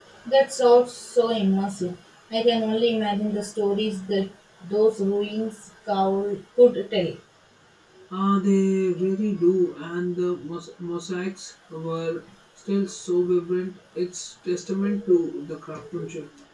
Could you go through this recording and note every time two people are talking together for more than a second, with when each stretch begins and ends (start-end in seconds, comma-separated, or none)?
none